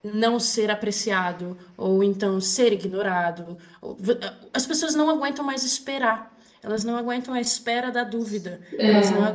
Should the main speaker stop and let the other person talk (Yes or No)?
No